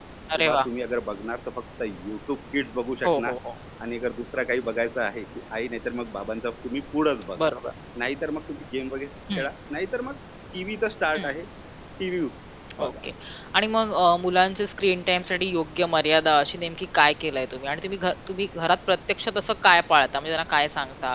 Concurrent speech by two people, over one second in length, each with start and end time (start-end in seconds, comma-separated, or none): none